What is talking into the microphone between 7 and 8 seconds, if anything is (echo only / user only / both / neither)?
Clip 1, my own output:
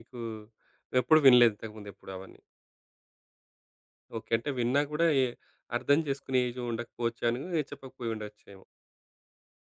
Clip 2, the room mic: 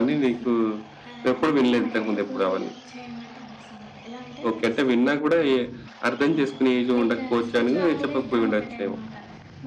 both